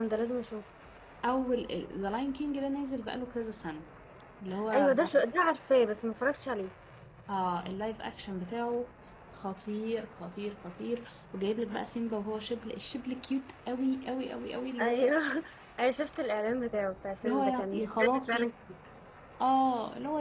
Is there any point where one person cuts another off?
Yes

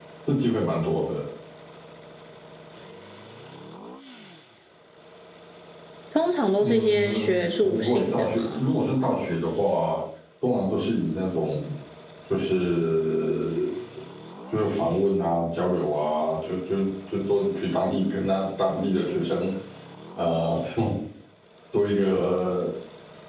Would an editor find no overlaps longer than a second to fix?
No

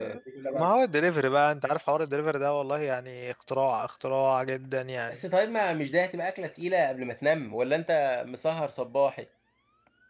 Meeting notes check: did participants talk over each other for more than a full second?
No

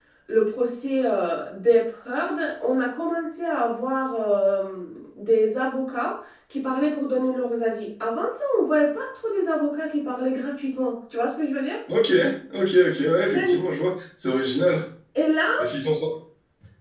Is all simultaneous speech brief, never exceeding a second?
Yes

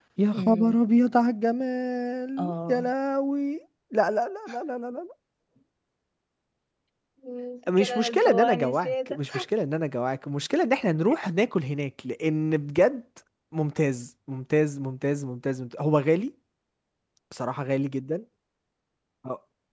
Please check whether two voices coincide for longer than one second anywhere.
Yes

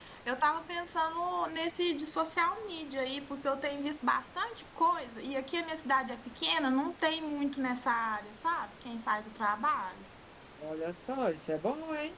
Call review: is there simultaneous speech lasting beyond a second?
No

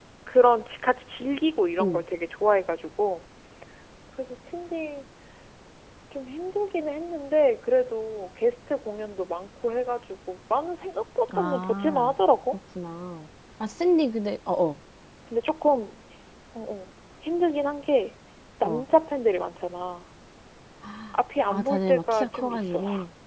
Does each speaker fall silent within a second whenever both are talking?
No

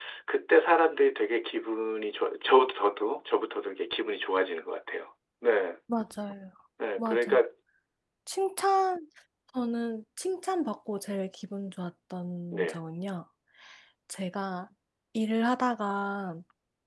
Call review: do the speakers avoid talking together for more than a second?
Yes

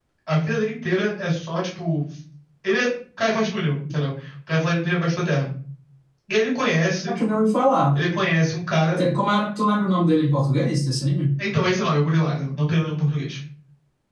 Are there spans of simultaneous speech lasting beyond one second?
No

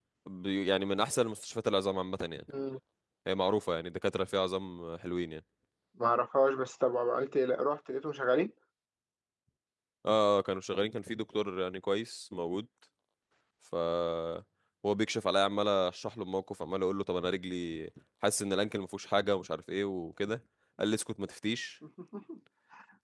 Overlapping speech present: No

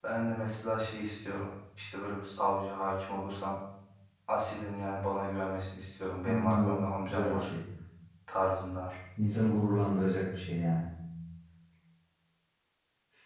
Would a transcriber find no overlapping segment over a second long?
No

